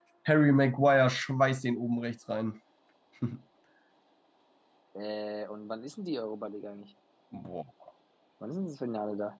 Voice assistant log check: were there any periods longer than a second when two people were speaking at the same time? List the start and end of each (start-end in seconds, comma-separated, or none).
none